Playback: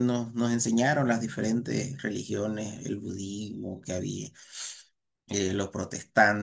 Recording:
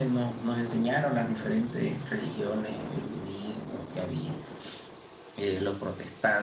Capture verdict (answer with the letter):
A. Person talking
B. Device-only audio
B